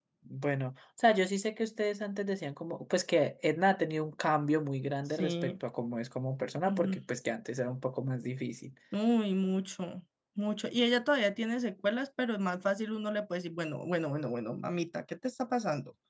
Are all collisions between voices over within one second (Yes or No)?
Yes